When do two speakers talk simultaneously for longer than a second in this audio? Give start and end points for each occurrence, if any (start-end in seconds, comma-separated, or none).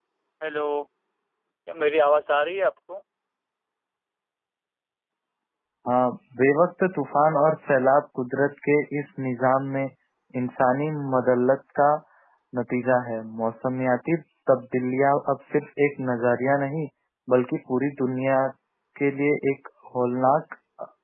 none